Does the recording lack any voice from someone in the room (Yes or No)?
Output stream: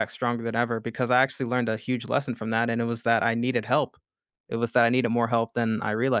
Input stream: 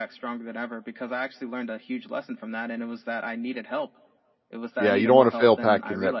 No